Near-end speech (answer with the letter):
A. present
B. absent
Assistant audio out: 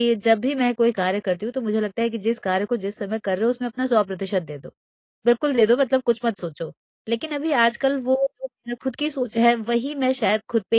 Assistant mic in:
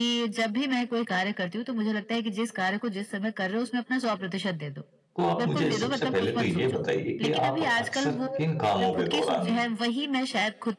A